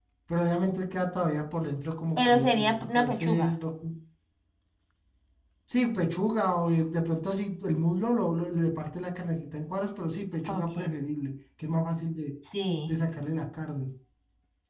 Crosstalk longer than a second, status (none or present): present